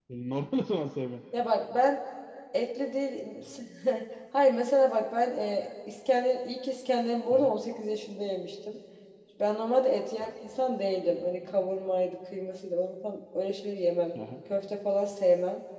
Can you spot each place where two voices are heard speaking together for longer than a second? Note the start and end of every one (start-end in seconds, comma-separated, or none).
none